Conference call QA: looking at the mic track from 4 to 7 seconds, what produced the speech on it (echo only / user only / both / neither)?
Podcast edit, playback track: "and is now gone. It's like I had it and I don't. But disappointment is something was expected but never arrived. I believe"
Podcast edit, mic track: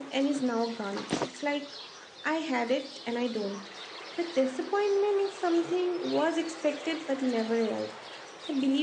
echo only